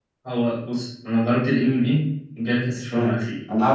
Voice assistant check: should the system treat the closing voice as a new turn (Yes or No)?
Yes